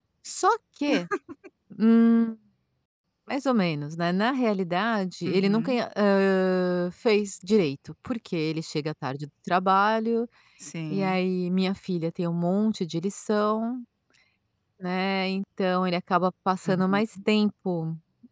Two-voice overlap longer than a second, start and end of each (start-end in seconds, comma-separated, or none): none